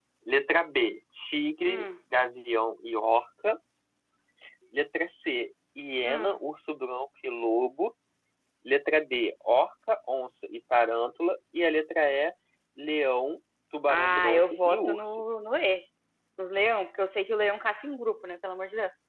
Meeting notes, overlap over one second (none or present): present